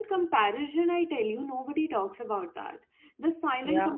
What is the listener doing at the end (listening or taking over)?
listening